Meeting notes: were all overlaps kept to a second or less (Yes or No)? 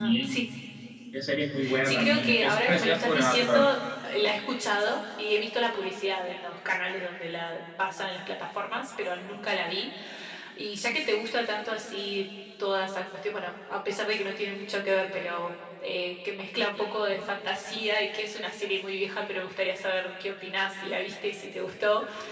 No